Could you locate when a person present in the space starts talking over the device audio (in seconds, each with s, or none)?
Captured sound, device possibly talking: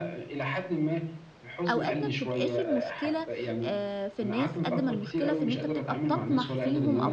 1.7 s